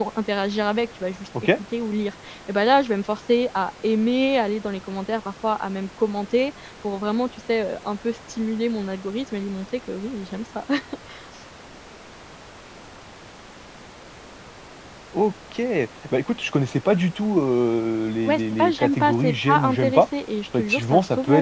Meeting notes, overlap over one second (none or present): present